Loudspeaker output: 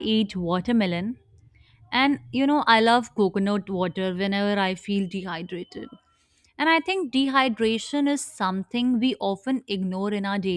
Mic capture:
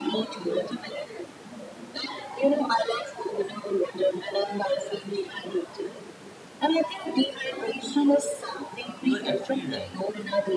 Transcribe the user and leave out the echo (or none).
you are actually right.